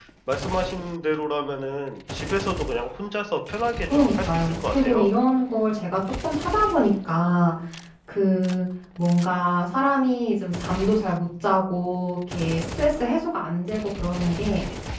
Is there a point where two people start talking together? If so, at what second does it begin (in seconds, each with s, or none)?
3.9 s